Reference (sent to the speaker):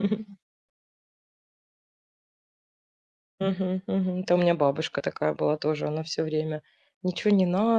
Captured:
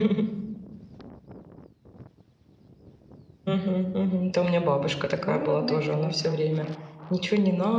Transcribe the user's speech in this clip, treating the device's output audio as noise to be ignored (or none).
двоюродная тетя у меня,